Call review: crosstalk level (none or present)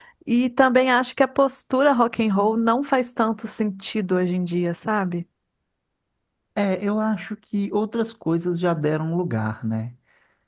none